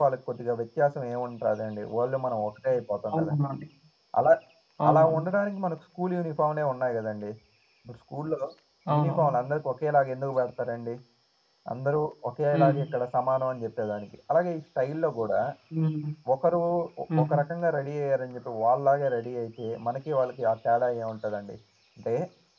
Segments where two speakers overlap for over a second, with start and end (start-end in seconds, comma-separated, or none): none